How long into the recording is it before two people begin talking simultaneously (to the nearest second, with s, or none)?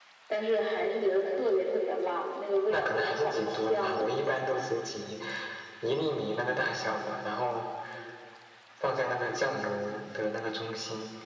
3 s